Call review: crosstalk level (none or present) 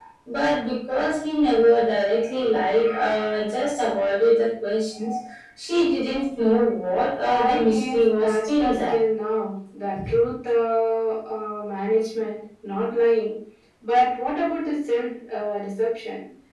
present